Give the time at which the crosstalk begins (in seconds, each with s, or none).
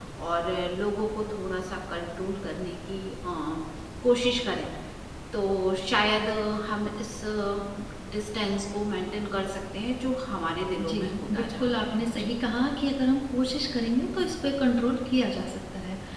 10.8 s